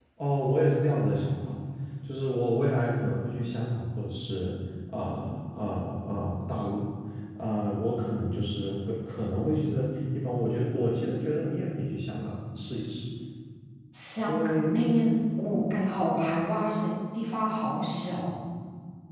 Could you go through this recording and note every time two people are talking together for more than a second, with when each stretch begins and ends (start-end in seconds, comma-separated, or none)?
none